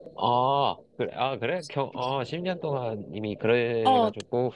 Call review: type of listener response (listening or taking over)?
taking over